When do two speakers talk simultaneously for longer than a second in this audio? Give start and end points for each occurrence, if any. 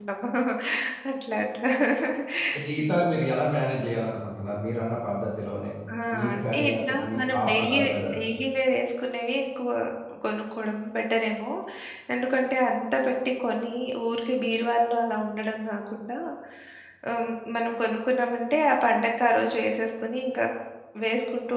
6.3-7.8

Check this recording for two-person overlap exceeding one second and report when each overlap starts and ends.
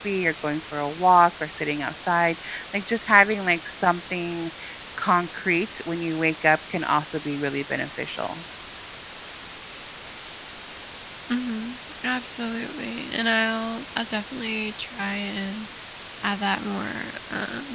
none

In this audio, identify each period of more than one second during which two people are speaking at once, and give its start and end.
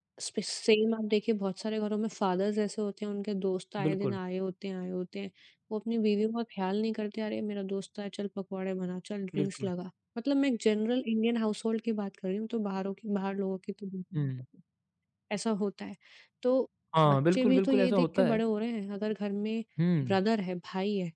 17.1-18.4

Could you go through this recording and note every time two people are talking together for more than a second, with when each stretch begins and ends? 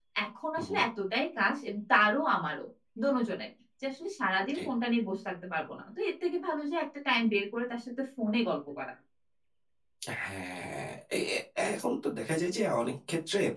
none

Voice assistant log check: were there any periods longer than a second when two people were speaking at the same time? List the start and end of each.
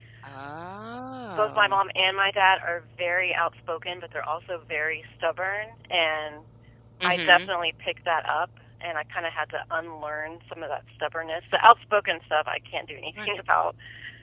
none

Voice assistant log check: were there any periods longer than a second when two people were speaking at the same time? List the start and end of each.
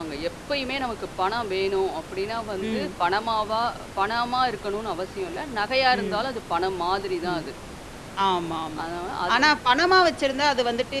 none

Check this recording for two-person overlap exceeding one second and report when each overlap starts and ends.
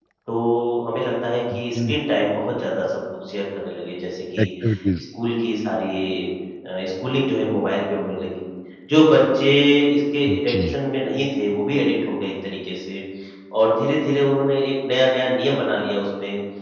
none

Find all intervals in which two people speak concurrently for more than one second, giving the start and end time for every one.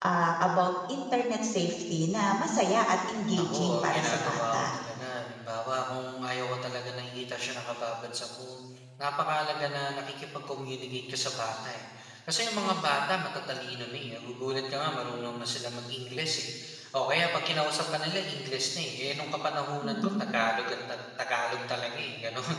3.3-4.7

